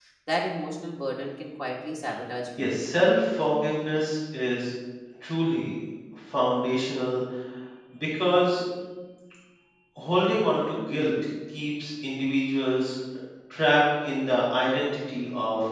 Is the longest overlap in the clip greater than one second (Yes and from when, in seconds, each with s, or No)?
No